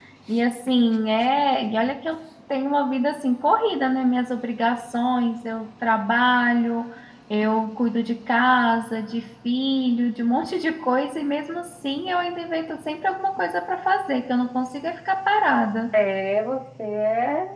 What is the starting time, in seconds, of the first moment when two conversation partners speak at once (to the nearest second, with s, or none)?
none